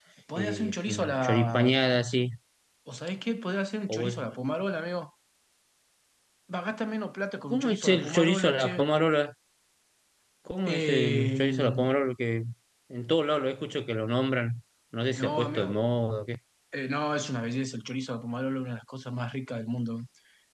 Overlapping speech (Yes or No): Yes